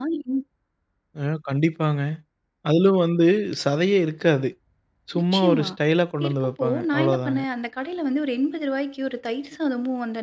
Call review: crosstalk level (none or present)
present